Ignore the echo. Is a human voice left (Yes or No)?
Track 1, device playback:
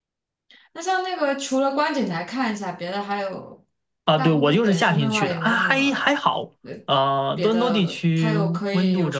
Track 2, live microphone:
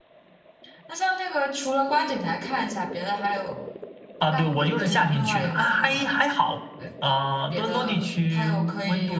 No